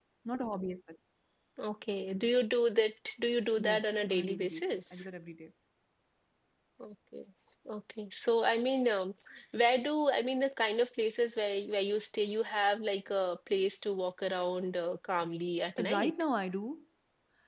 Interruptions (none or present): present